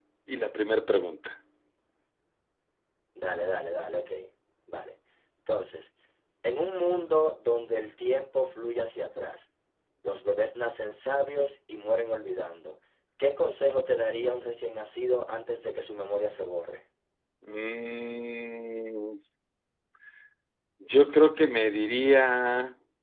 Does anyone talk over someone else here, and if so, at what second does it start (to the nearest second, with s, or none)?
none